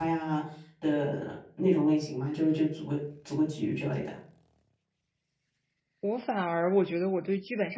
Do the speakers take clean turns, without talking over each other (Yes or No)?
Yes